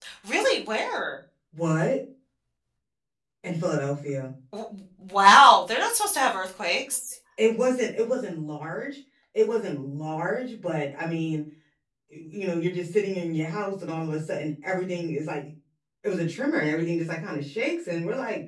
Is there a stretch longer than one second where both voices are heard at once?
No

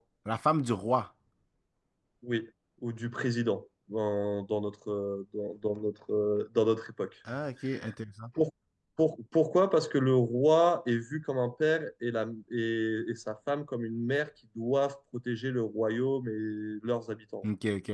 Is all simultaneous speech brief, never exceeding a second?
Yes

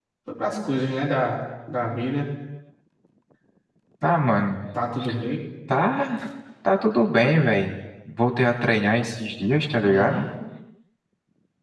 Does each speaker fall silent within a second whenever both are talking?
Yes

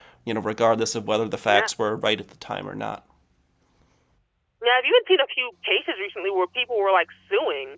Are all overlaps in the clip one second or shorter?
Yes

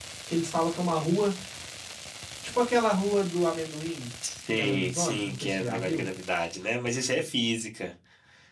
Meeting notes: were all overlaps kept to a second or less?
No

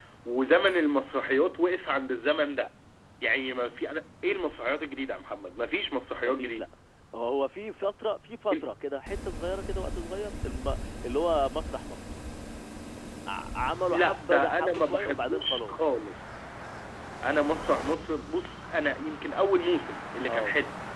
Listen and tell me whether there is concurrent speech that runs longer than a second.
Yes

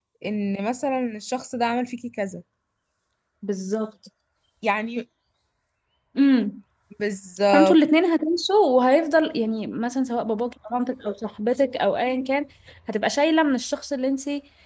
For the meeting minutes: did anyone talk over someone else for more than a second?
No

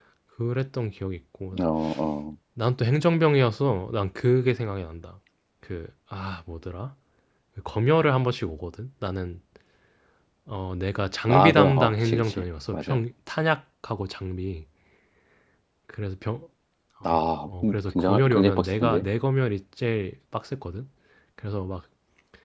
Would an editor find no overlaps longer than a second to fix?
No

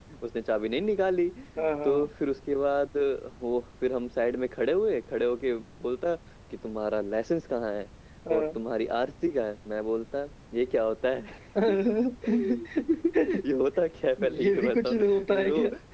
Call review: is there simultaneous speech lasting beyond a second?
Yes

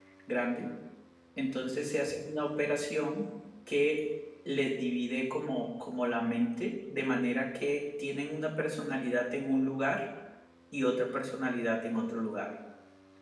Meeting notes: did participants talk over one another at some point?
No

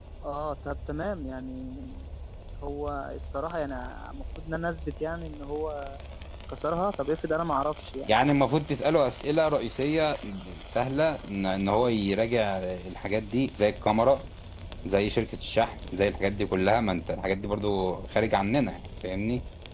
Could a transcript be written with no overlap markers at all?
Yes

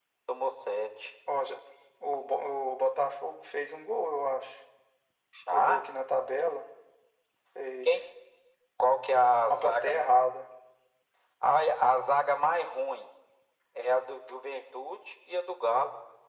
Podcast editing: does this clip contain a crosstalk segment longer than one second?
No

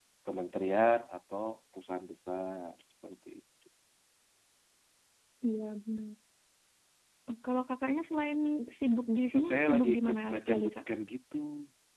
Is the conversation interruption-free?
No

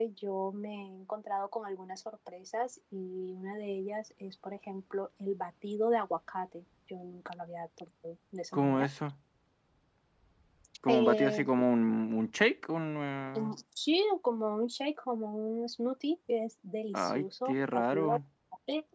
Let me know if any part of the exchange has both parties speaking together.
Yes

